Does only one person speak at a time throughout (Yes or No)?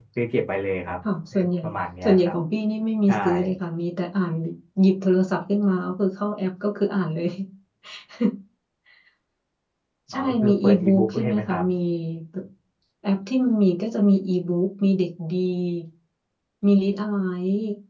No